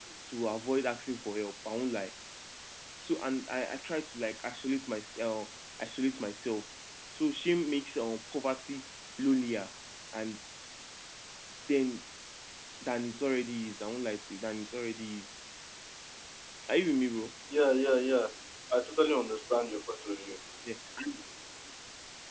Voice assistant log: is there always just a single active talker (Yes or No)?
Yes